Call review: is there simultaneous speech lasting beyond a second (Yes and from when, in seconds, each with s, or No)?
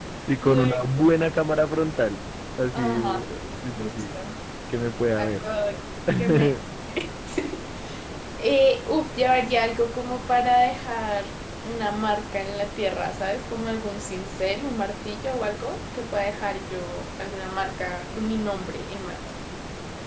No